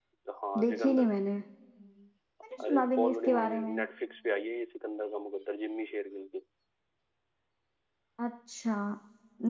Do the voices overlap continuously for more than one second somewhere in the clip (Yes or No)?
Yes